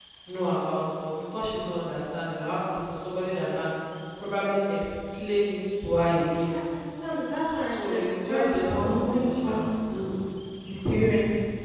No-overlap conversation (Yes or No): No